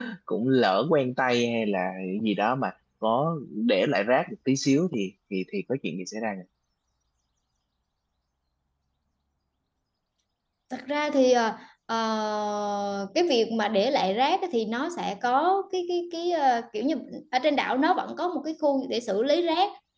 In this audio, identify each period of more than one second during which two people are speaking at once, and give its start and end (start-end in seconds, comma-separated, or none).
none